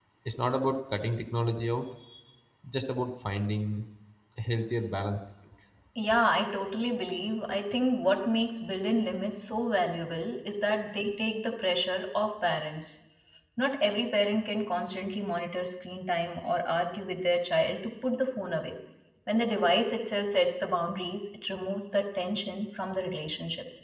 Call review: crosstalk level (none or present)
none